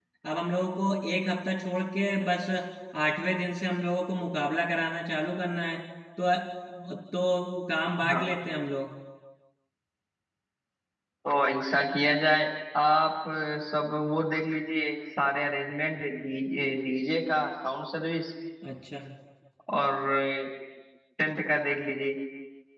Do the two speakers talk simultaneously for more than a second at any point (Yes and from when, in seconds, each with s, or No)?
No